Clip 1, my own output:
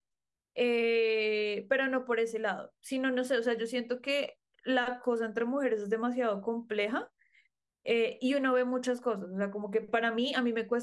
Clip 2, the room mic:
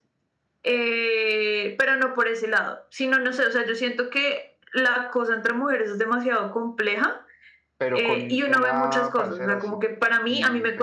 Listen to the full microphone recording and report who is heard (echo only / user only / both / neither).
both